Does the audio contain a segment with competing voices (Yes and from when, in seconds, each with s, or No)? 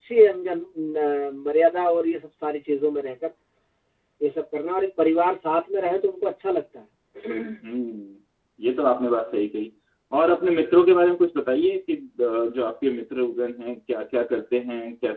No